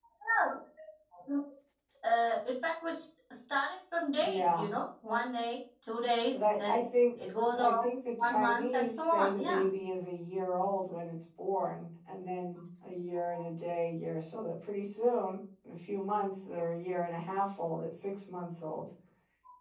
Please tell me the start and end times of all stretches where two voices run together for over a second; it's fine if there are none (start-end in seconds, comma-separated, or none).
8.2-9.6